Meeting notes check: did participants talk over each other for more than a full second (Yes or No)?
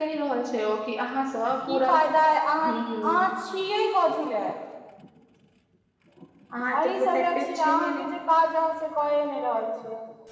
Yes